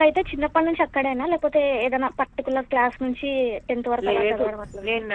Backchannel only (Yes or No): No